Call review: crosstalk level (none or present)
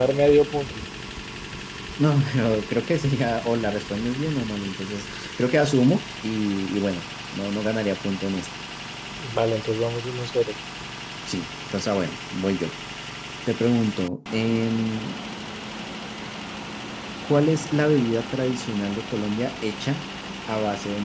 none